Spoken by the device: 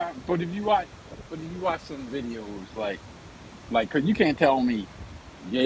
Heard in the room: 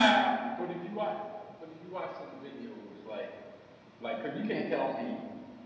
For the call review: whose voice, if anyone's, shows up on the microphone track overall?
echo only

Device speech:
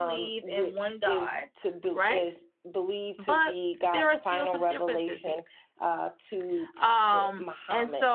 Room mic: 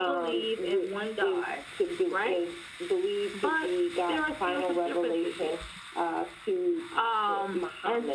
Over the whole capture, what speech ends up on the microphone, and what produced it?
echo only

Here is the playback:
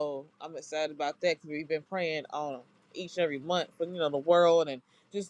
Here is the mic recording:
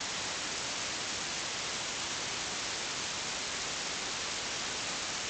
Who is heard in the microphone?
neither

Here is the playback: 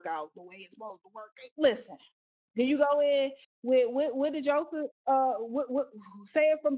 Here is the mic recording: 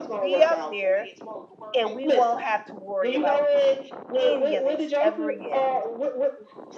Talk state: both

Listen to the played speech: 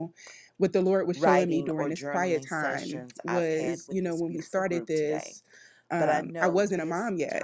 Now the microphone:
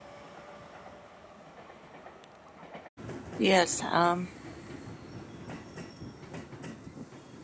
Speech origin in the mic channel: user only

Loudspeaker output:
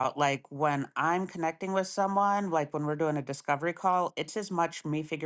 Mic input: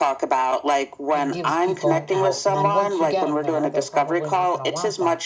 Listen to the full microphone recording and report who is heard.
both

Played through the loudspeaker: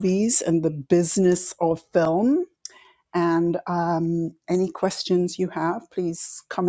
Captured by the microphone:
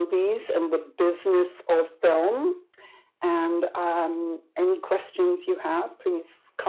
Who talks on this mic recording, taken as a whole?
echo only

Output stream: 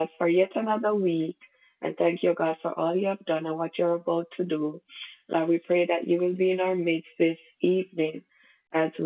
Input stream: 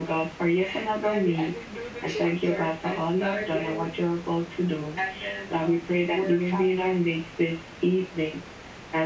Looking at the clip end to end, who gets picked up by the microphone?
both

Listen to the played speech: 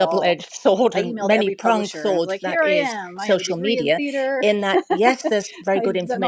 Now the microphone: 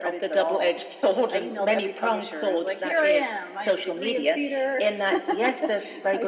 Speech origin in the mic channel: echo only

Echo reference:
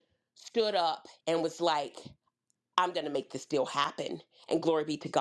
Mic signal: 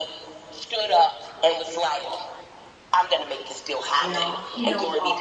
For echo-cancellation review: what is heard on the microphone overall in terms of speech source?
both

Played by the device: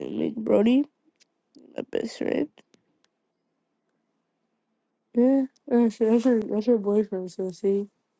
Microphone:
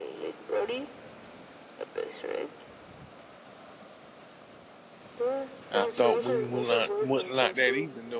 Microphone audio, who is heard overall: both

